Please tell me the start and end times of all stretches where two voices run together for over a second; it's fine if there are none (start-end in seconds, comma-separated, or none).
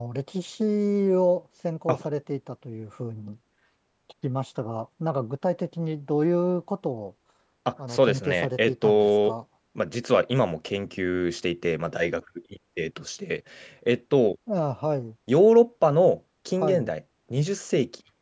7.9-9.3